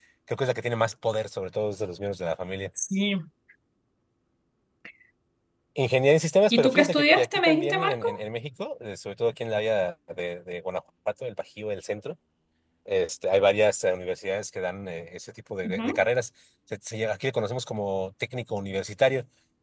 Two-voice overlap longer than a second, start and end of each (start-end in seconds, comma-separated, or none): 6.5-8.1